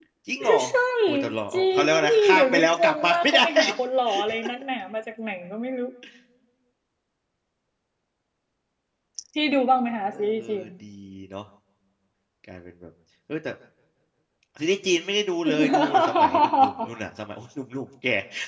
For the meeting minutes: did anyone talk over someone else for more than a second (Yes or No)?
Yes